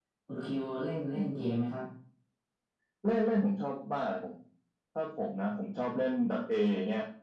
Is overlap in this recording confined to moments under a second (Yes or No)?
Yes